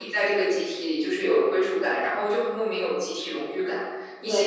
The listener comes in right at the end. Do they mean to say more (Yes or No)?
No